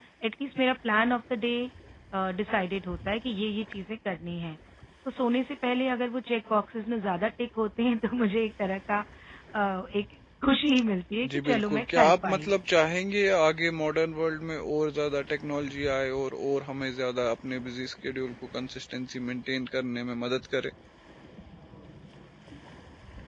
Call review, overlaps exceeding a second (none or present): present